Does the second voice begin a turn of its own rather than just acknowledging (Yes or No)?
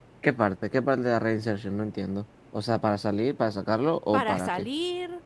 Yes